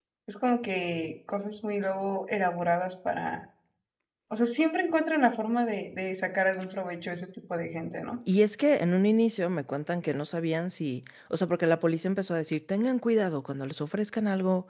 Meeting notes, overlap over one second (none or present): none